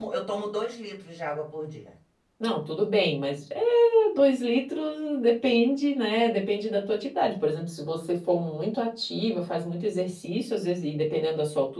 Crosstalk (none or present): none